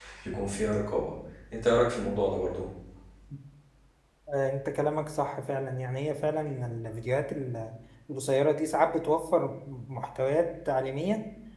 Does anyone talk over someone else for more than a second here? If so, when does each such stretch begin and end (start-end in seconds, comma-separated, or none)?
none